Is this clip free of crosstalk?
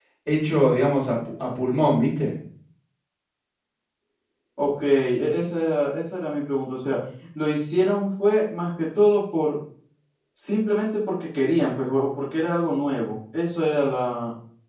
Yes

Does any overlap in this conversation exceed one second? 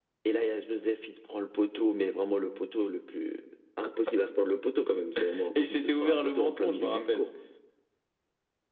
Yes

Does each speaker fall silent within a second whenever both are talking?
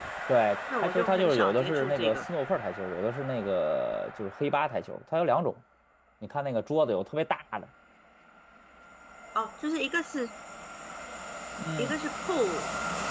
No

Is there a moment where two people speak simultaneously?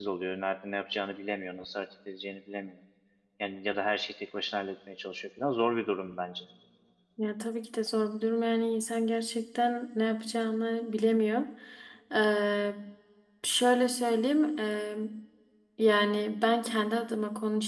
No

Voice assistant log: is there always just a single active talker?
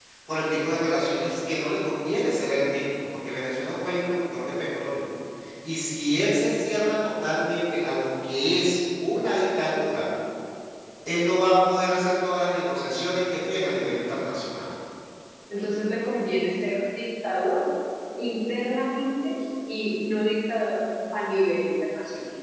Yes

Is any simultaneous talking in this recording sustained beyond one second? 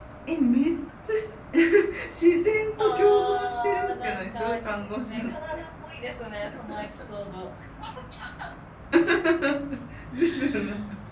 Yes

